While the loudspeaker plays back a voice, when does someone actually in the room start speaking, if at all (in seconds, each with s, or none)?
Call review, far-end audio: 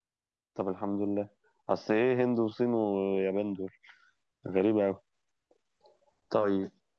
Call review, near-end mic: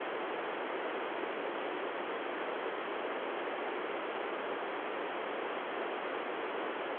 none